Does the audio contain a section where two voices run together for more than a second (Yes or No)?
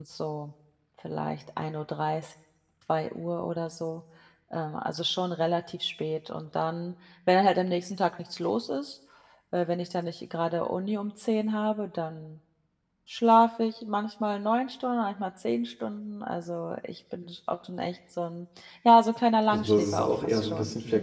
Yes